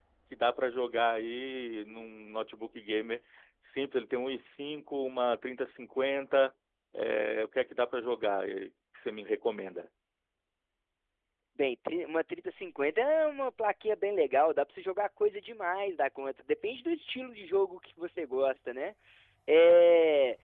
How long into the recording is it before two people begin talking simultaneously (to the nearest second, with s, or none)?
none